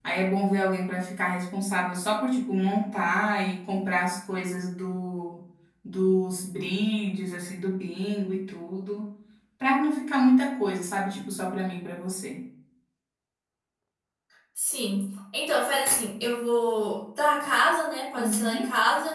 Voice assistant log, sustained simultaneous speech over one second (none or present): none